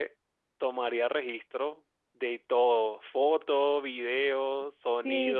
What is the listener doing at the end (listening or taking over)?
taking over